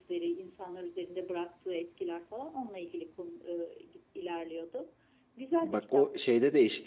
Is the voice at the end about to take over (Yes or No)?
Yes